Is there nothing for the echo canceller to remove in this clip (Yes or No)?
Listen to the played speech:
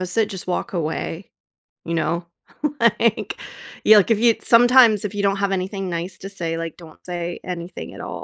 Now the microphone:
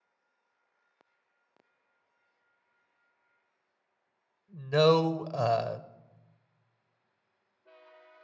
Yes